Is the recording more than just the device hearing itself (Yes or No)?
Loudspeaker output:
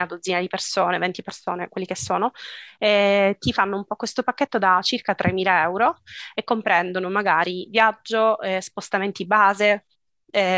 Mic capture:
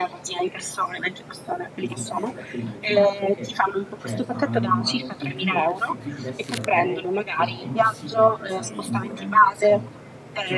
Yes